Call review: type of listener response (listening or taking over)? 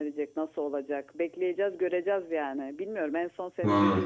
listening